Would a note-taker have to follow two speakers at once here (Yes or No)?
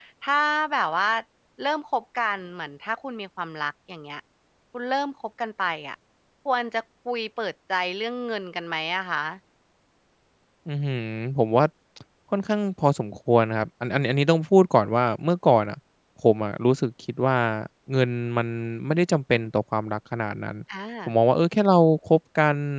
No